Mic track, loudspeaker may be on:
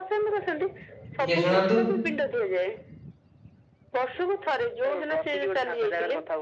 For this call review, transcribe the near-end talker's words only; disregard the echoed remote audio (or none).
ଟିକେ ଶୁଣାନ୍ତୁ